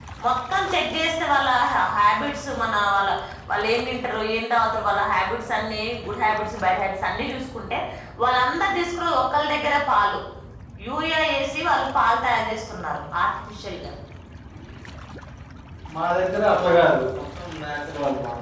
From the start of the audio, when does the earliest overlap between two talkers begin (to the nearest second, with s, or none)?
none